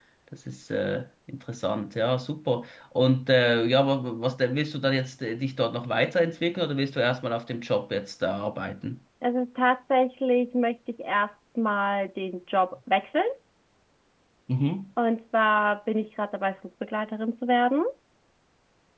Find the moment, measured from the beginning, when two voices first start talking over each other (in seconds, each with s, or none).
none